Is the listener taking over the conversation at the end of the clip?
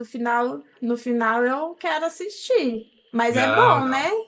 Yes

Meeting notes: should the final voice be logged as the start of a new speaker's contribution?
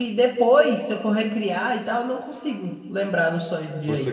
Yes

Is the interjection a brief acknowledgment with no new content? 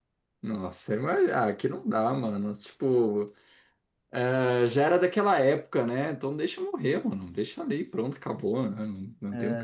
No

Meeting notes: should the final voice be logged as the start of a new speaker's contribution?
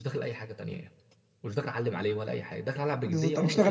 Yes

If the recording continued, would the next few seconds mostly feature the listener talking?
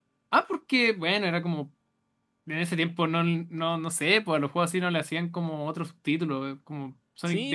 Yes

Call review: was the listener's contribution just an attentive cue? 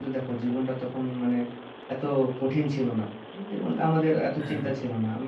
Yes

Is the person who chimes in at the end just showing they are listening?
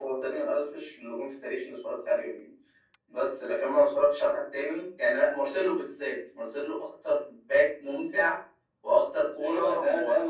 No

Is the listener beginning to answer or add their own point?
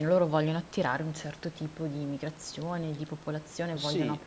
Yes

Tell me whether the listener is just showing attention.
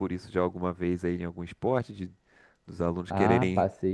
No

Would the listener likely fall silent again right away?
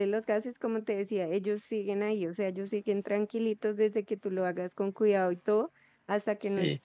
Yes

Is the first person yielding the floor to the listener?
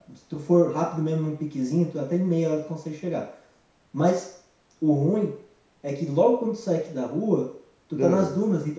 No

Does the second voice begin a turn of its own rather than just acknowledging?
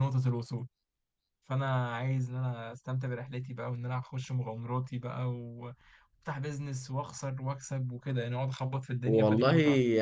Yes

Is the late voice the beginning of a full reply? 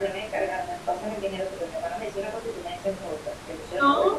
No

